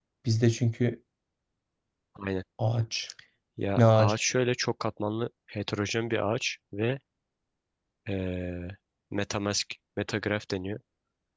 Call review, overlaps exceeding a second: none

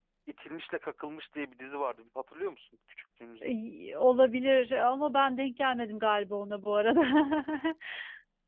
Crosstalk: none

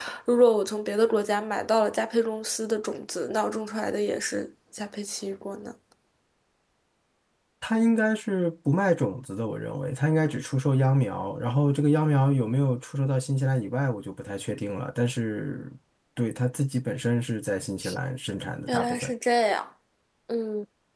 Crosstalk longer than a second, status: none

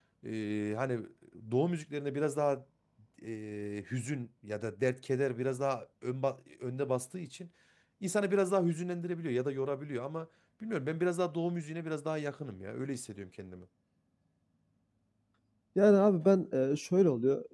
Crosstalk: none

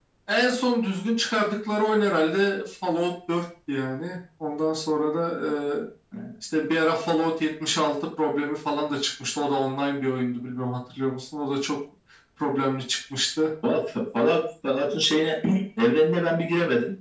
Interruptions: none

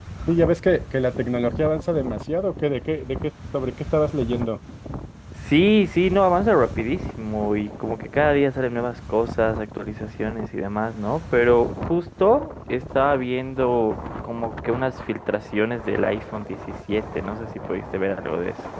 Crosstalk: none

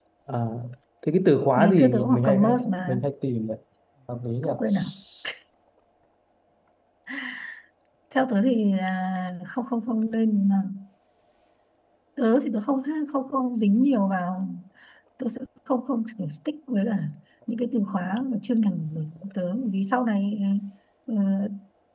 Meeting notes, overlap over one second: present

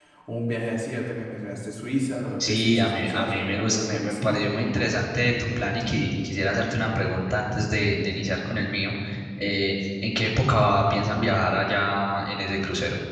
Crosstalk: present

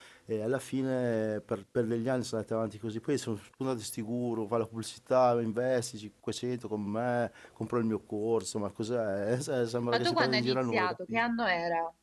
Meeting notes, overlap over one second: present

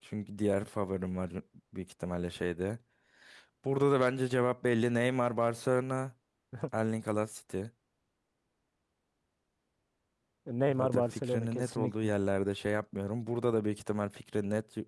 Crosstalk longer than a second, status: present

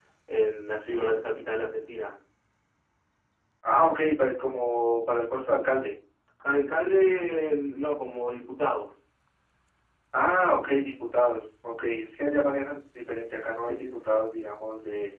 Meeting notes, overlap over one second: none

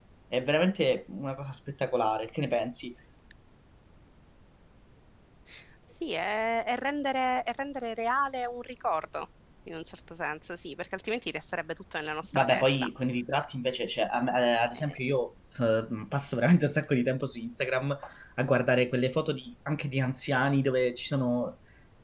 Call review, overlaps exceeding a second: none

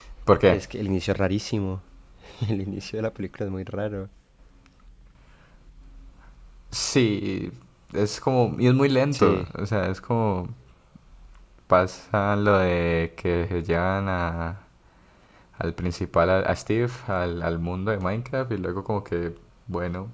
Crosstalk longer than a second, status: none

